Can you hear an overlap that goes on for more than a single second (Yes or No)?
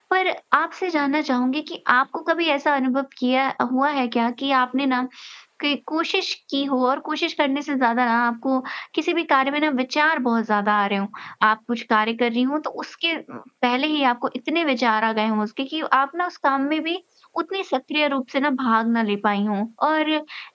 No